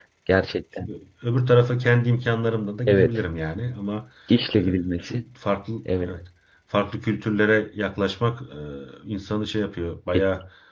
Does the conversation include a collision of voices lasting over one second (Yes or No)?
No